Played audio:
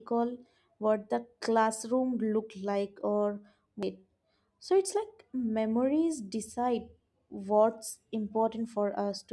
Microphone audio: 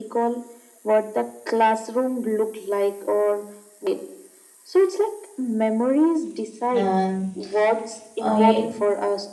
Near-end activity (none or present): present